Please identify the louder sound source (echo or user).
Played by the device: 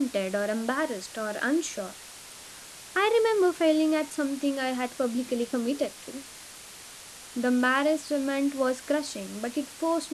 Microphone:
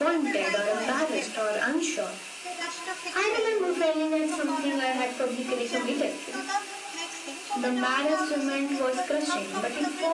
echo